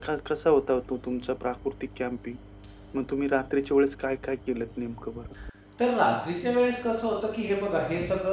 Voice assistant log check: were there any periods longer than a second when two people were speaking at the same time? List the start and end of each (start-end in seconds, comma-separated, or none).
none